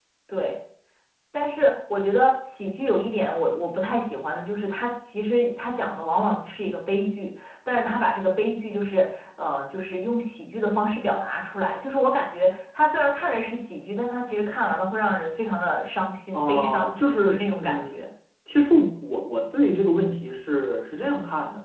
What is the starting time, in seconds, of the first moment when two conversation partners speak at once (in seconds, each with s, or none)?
16.3 s